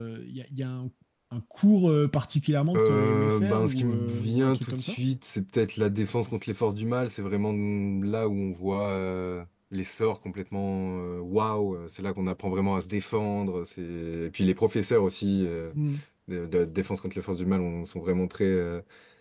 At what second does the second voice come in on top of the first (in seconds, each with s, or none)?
2.7 s